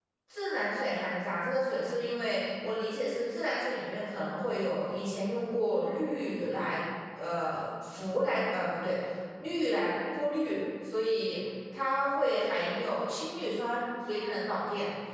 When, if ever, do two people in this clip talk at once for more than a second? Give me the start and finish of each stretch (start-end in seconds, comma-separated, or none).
none